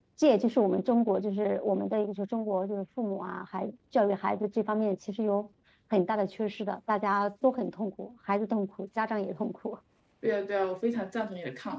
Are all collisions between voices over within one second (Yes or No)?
Yes